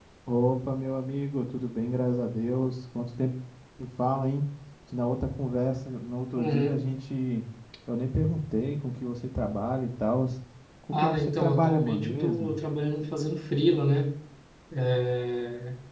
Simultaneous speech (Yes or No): Yes